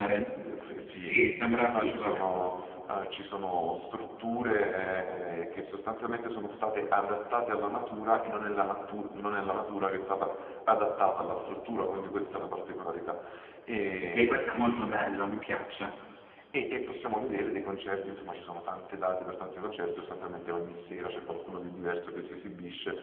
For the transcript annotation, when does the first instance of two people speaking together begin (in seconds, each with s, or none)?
0.9 s